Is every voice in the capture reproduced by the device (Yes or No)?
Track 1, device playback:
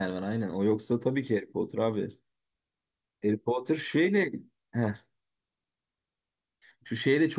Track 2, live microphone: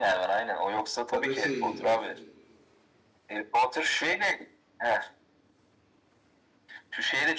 No